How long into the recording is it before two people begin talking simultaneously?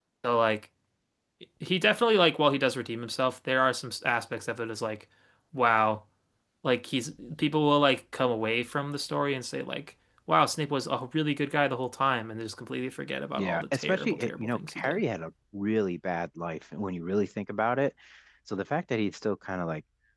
13.4 s

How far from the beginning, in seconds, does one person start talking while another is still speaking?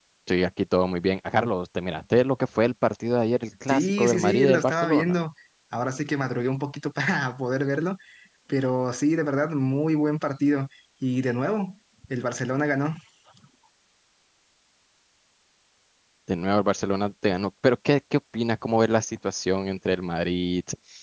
3.7 s

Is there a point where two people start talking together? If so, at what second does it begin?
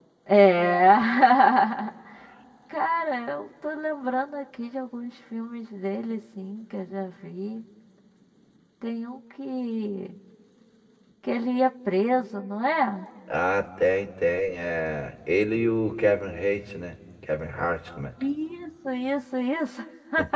none

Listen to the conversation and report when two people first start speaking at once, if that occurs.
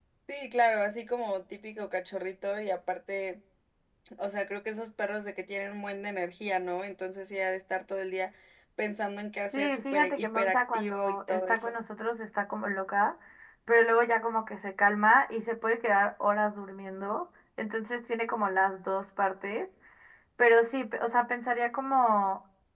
9.5 s

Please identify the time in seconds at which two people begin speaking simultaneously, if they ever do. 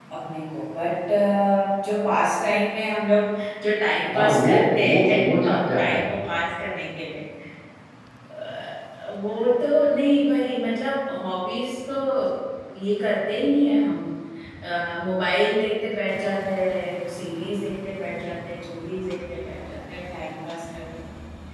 4.1 s

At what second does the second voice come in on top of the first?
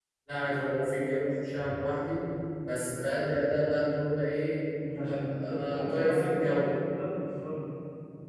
4.8 s

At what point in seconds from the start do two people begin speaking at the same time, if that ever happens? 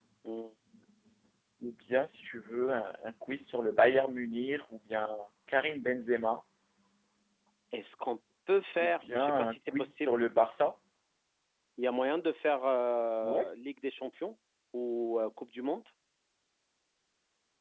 8.8 s

